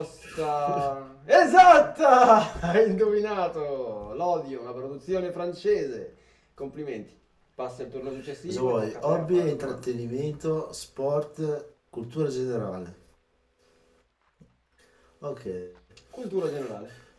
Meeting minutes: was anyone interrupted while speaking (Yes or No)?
Yes